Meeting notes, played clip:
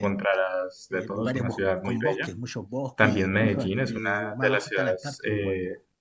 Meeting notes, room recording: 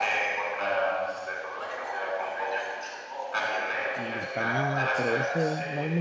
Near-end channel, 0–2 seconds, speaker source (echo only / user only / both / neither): echo only